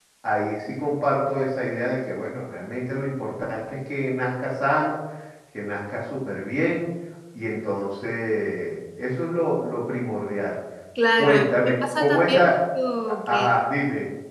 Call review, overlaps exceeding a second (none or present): present